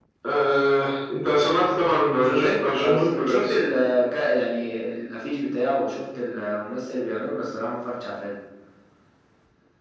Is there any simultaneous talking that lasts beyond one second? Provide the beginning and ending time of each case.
2.2-3.7

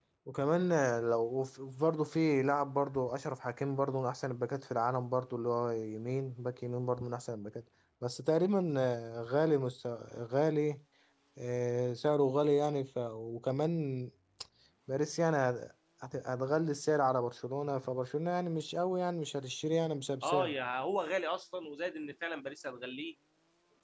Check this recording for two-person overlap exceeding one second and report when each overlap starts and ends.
none

